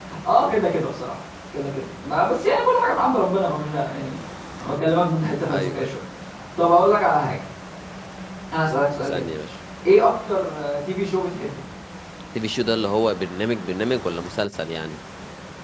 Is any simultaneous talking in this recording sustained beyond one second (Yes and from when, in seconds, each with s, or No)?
No